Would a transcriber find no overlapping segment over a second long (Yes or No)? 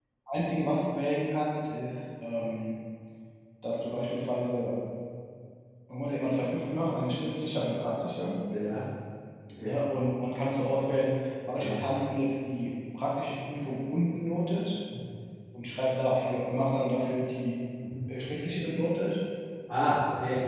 Yes